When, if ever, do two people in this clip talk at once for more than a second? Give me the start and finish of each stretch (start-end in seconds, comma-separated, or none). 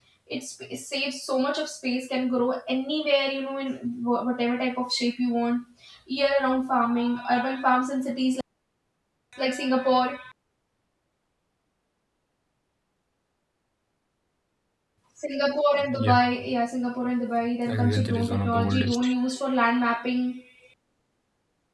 17.7-19.1